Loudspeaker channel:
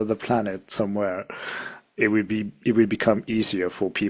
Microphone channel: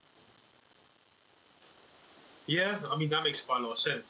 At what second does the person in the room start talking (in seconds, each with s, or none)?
2.5 s